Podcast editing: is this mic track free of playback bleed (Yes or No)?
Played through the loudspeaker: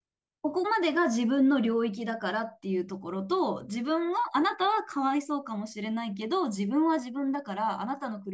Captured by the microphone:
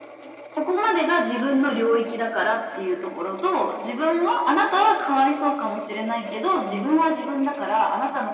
No